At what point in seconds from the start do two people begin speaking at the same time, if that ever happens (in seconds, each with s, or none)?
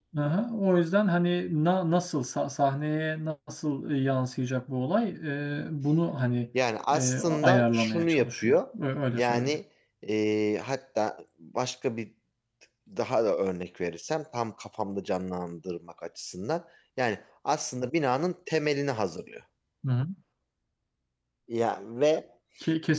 6.9 s